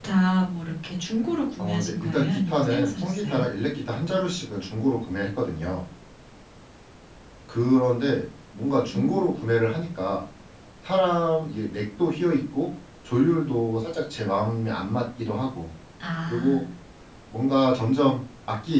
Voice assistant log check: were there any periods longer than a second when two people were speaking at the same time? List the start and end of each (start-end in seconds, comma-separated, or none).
1.6-3.4